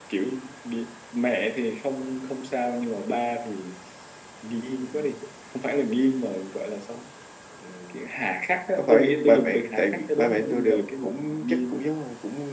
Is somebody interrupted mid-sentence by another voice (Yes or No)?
Yes